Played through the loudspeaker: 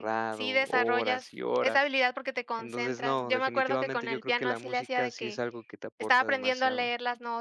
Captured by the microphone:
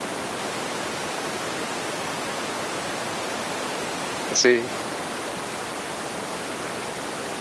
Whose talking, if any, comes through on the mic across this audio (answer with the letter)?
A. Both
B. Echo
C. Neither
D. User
D